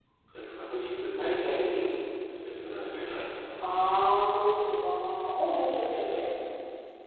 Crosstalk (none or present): none